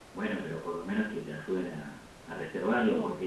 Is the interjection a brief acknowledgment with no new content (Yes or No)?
Yes